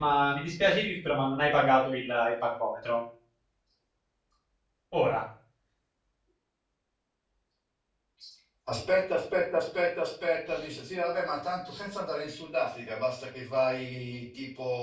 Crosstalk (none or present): none